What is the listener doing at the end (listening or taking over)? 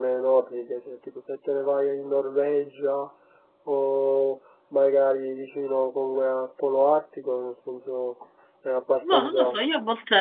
taking over